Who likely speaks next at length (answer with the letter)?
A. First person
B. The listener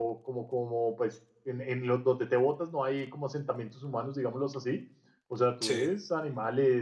A